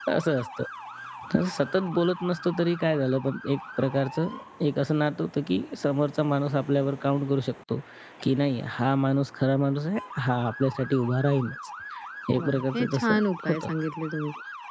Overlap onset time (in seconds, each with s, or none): 12.4 s